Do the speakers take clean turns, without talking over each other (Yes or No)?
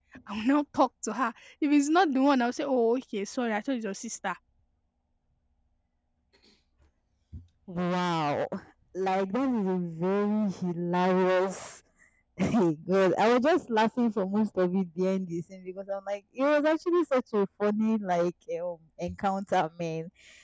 Yes